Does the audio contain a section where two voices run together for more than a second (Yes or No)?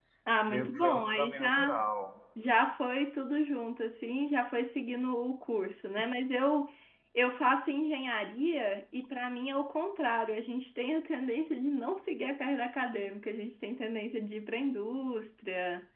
Yes